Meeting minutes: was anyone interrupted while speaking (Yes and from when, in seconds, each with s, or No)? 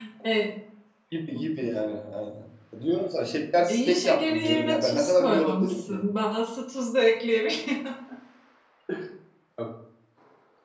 Yes, from 3.7 s